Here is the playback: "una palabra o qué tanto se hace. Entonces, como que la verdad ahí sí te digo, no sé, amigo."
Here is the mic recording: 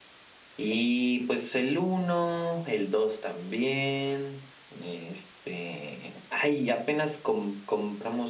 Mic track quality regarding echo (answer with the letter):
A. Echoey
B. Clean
B